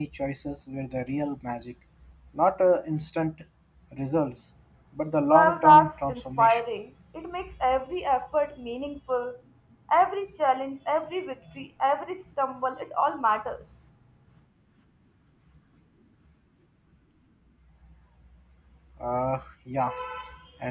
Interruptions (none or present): present